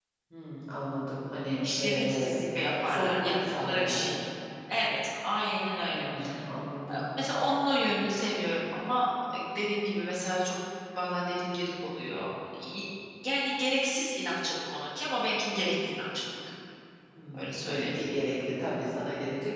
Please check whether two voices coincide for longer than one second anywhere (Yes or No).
Yes